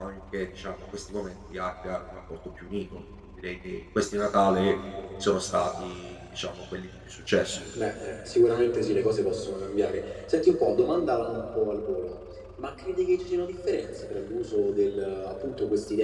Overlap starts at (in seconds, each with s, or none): none